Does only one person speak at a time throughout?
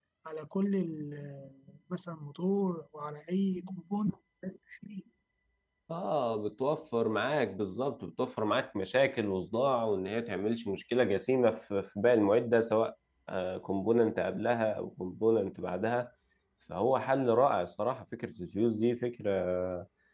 Yes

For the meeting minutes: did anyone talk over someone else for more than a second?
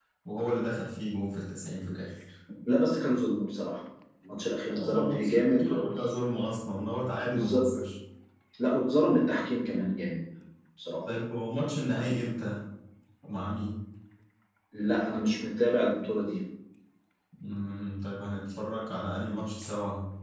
Yes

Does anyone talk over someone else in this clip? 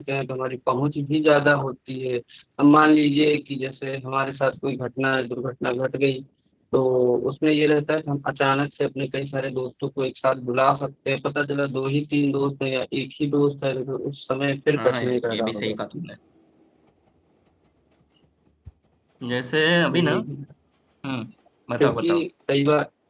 Yes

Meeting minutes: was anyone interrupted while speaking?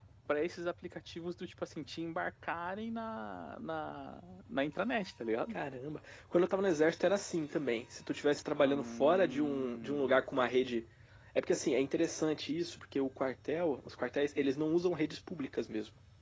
Yes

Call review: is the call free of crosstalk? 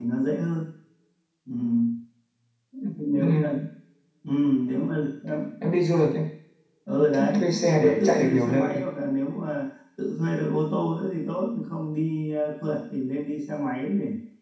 No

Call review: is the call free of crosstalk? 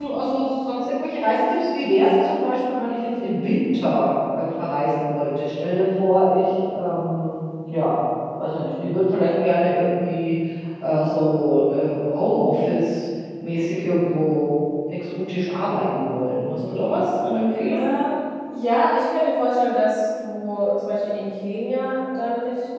Yes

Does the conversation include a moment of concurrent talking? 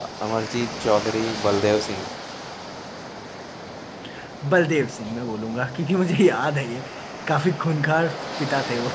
No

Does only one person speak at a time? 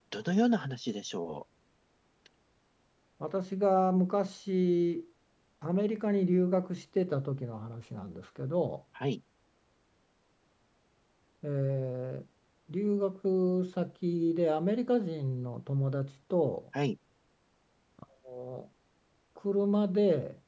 Yes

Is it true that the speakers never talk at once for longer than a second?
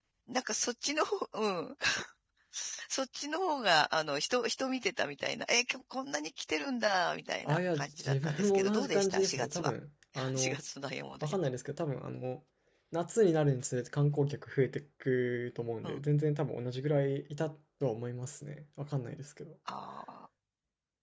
No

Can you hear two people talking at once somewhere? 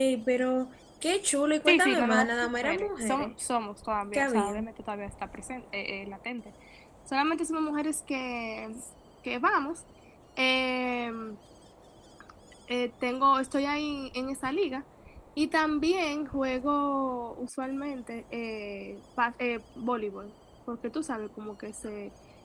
Yes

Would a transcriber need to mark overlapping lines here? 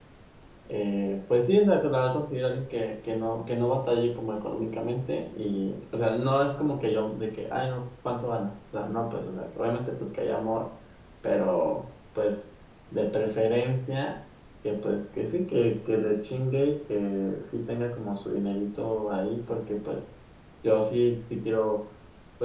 No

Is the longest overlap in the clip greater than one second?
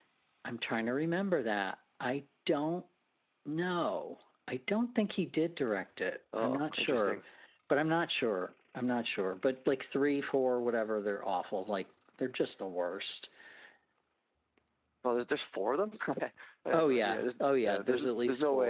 Yes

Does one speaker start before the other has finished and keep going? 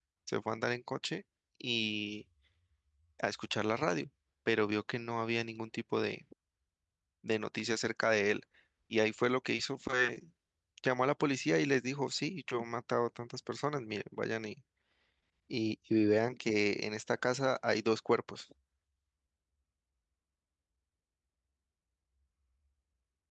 No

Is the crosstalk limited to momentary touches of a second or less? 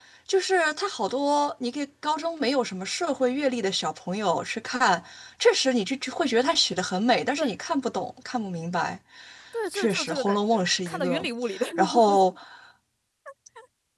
No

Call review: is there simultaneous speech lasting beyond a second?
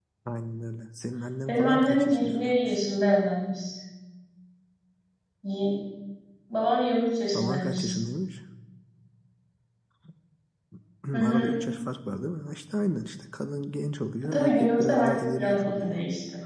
Yes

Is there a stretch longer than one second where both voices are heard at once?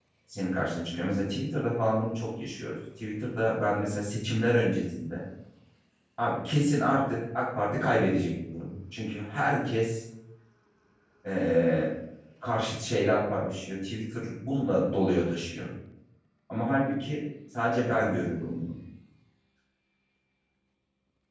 No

